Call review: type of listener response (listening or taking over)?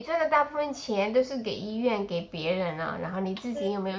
listening